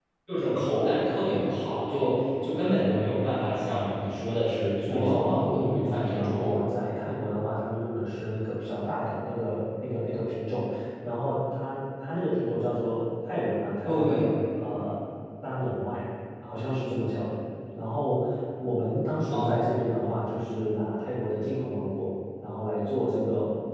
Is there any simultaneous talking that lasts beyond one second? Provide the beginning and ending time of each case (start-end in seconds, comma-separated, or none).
4.9-6.5